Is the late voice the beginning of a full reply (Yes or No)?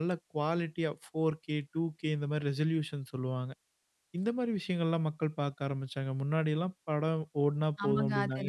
Yes